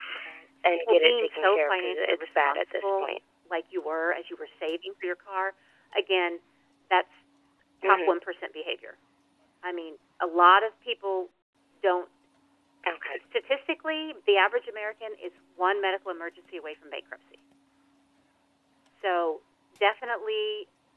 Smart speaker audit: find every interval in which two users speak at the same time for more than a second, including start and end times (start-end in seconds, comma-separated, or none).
0.9-3.1